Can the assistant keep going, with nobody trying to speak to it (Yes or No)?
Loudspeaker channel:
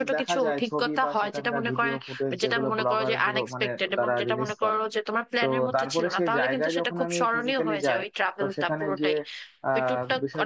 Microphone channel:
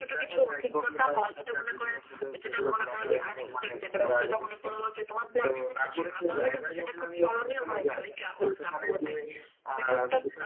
Yes